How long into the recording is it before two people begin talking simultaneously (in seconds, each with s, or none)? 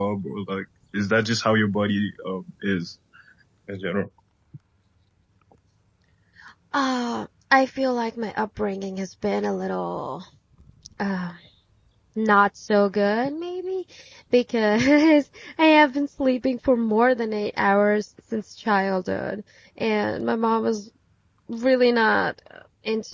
none